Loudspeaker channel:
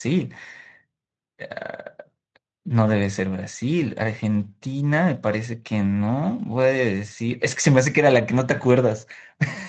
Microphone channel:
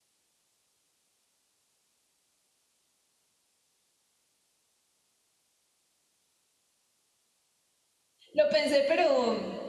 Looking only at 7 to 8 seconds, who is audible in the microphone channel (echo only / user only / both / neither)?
neither